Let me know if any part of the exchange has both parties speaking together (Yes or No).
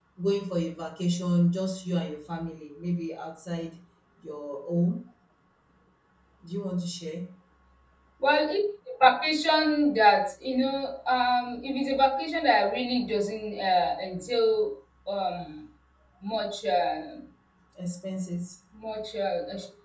No